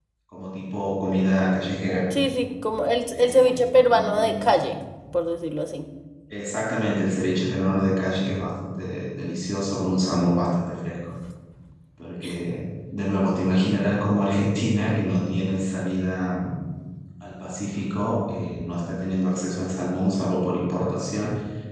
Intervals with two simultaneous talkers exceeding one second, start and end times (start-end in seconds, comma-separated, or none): 3.1-4.4